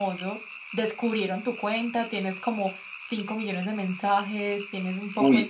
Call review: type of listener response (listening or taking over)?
listening